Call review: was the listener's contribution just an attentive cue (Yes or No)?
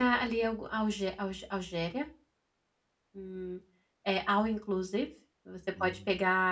Yes